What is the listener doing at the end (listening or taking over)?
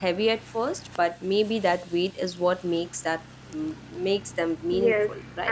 taking over